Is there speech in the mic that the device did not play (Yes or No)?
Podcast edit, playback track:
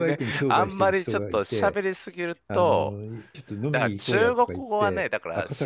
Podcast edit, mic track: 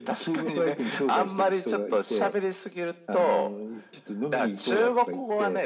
No